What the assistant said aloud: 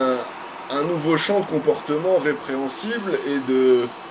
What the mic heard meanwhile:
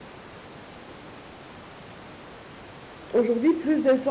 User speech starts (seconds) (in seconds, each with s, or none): 3.1 s